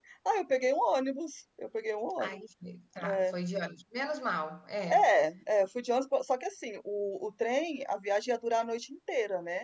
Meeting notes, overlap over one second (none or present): none